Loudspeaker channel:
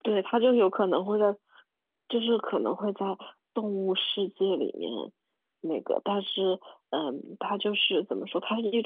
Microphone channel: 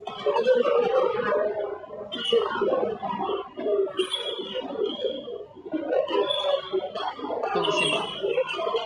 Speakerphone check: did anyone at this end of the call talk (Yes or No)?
Yes